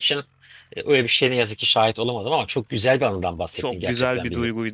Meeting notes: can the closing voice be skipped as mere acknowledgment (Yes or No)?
No